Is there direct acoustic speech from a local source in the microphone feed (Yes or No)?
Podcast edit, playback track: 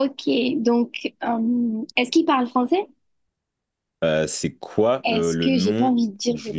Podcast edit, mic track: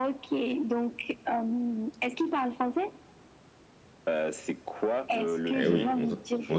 Yes